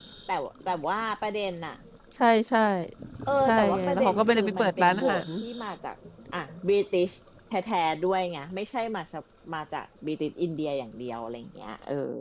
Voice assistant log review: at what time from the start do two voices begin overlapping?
3.5 s

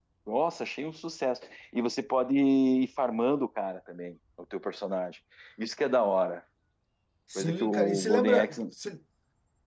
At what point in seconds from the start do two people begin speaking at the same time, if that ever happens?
7.3 s

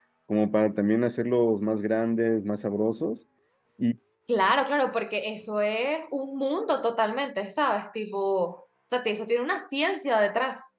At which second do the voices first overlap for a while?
none

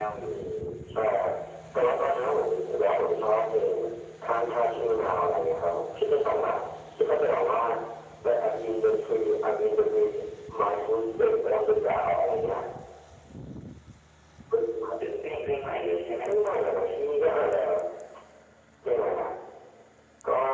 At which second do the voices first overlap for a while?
none

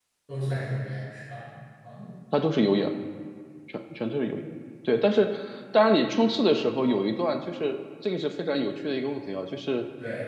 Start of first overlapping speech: none

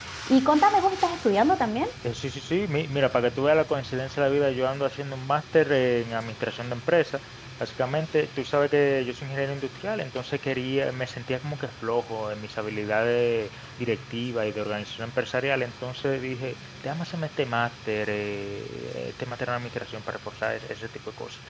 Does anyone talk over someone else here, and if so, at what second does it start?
none

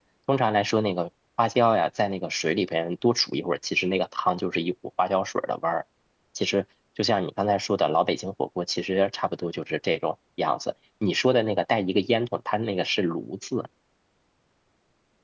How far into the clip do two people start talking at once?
none

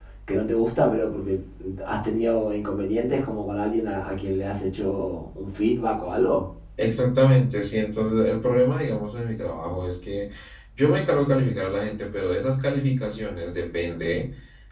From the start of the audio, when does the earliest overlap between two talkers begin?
none

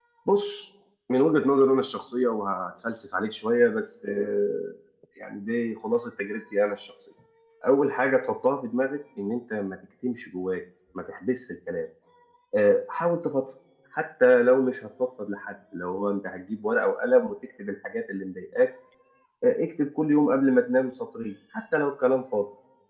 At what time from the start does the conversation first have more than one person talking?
none

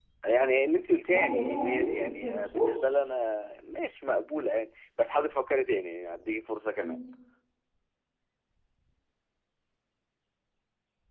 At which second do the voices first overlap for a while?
1.0 s

